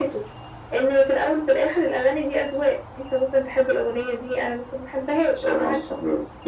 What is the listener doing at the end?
taking over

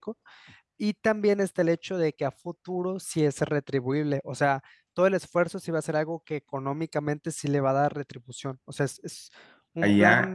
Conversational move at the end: taking over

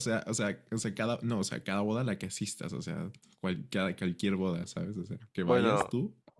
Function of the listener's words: taking over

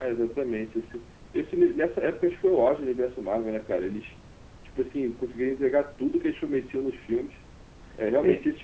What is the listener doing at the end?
listening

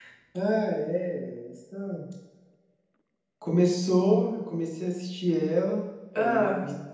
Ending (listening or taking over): listening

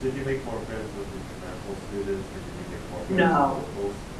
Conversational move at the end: taking over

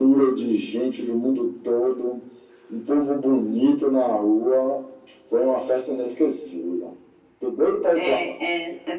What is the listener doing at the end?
taking over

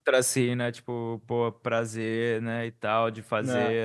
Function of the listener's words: listening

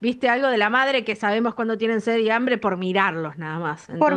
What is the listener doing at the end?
taking over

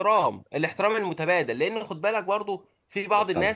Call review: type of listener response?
listening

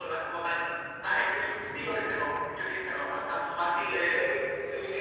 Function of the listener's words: taking over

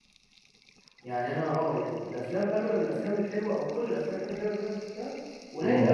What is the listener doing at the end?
listening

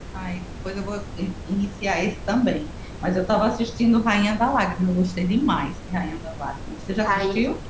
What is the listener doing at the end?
taking over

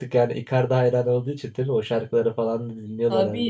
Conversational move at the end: taking over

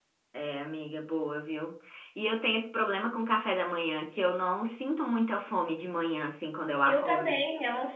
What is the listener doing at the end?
taking over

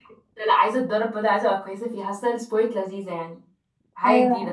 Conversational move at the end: taking over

